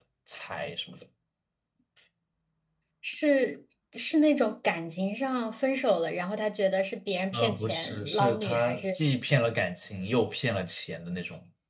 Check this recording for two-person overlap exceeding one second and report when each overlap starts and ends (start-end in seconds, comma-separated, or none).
7.3-9.0